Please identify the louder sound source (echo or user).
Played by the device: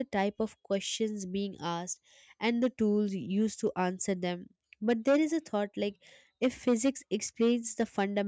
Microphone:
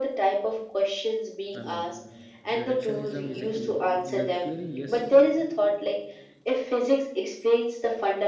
echo